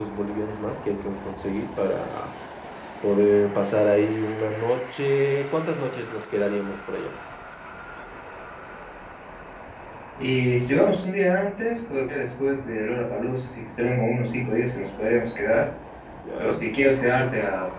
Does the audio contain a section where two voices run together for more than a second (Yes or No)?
No